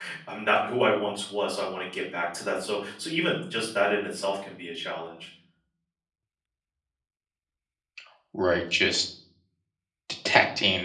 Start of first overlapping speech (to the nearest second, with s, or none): none